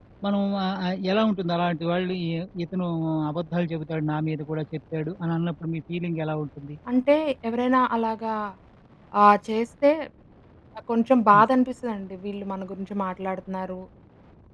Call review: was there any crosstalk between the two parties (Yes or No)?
No